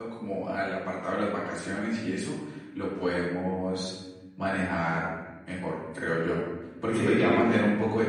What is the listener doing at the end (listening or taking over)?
listening